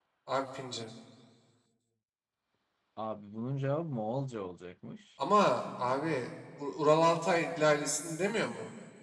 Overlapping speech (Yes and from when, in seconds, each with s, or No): No